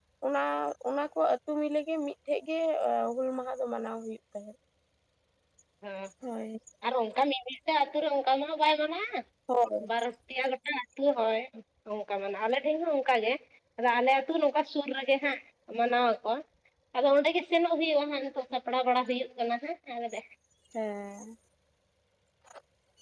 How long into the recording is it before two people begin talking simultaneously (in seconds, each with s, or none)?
none